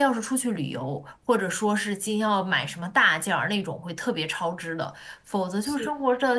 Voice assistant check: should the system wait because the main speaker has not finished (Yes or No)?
Yes